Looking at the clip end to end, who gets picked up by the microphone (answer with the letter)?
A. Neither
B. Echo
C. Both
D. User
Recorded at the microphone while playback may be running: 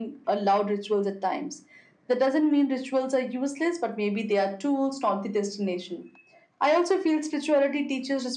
B